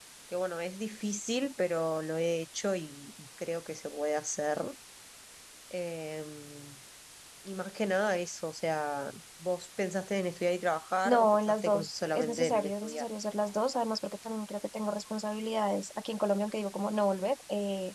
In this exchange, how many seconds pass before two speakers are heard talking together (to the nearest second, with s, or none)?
11 s